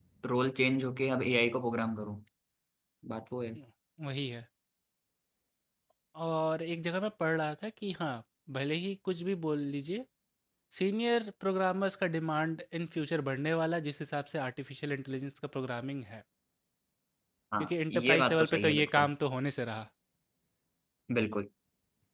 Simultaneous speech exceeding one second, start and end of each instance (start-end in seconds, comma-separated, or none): 17.6-19.1